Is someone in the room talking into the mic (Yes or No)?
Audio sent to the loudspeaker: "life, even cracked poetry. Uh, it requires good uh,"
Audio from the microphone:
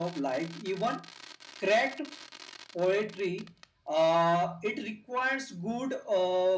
No